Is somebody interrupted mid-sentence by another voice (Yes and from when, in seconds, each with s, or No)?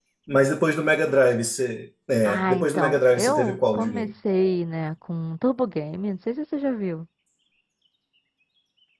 Yes, from 2.2 s